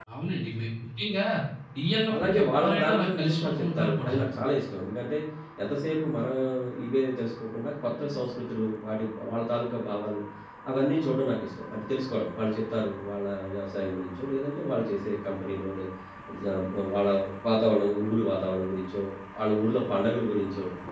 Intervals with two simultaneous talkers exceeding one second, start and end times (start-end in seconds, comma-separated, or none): 2.1-4.1